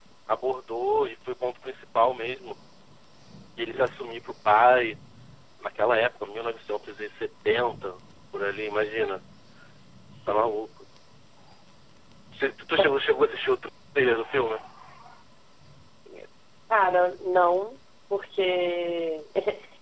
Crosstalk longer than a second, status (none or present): none